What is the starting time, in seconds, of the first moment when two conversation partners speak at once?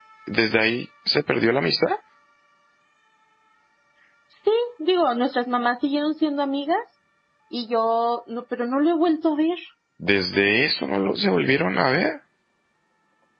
none

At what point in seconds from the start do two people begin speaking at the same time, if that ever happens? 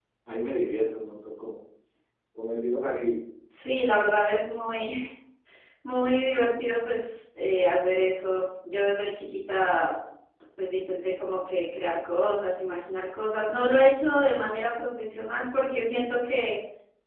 none

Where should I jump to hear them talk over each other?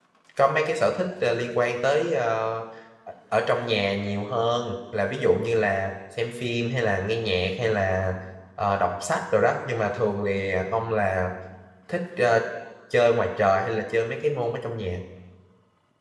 none

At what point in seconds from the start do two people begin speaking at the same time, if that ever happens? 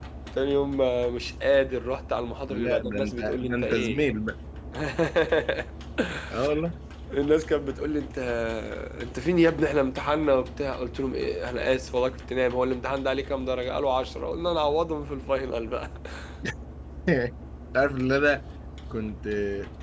2.5 s

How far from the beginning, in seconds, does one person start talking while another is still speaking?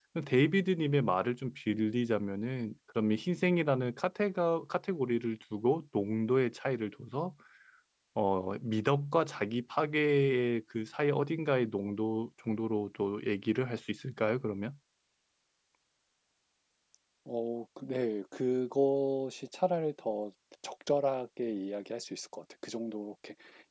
none

